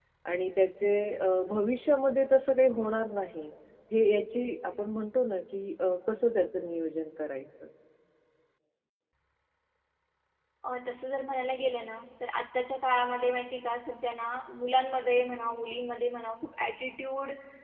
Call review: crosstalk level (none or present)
none